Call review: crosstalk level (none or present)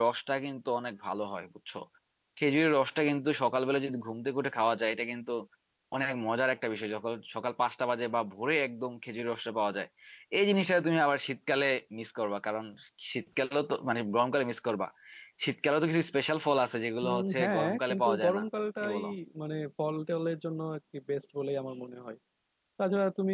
present